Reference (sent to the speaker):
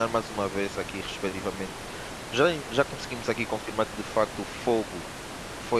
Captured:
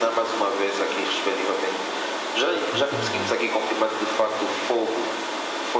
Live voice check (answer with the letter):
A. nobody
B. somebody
B